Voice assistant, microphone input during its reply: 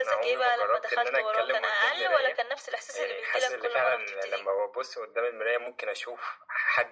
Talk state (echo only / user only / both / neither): echo only